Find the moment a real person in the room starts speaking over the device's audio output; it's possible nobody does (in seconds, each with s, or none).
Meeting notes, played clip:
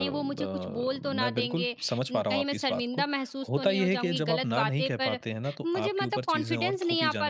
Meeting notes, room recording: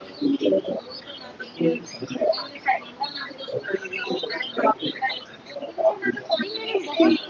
6.4 s